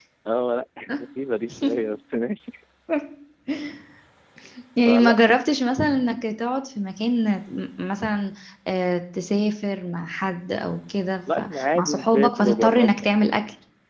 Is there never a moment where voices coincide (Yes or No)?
No